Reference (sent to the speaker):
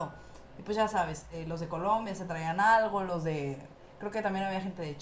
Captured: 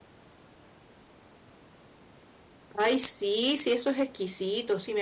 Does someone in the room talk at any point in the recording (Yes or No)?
Yes